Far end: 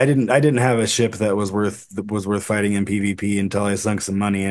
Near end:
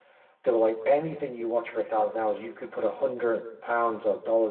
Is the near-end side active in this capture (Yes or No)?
Yes